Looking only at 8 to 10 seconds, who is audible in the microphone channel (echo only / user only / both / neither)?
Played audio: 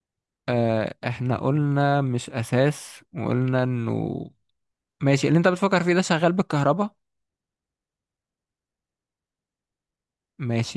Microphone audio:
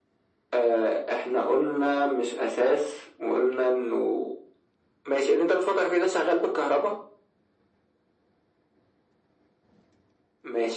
neither